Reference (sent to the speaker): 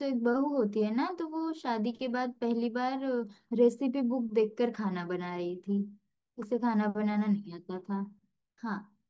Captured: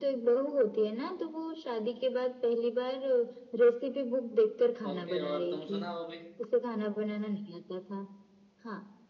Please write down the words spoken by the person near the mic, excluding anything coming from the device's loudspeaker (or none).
ओके और तुम सुना वो भी